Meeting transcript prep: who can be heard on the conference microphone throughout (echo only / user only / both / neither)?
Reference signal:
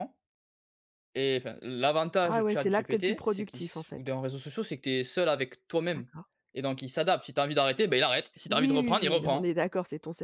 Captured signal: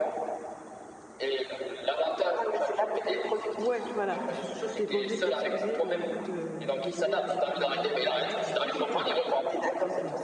both